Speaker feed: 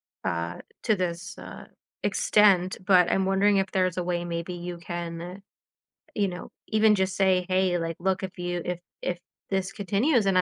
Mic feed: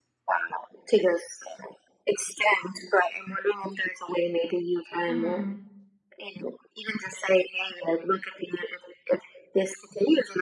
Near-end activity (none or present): present